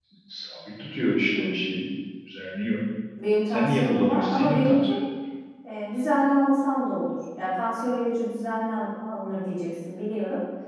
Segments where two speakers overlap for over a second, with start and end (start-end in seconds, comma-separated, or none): 3.5-4.9